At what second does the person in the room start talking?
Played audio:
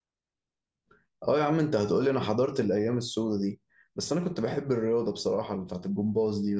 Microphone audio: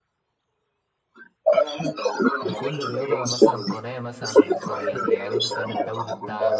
2.4 s

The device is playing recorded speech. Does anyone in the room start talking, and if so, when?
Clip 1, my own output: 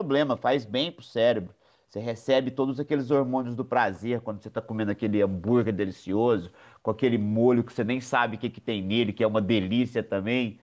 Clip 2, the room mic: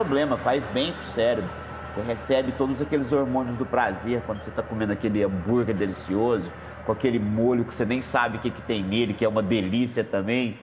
none

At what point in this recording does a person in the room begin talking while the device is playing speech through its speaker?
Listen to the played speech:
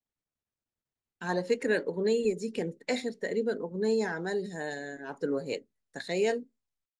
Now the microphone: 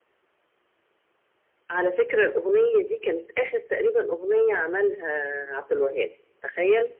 none

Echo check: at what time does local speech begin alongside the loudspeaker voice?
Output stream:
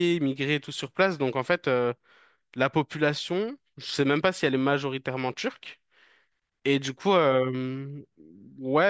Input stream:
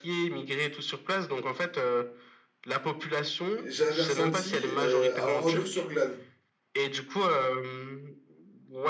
3.6 s

